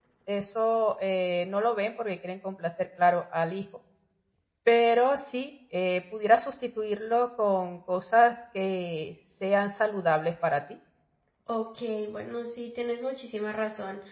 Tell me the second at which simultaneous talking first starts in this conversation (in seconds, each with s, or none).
none